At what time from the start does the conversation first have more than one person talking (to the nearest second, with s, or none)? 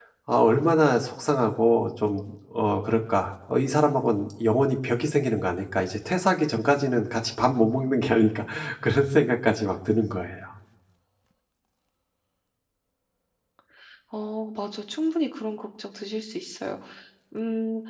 none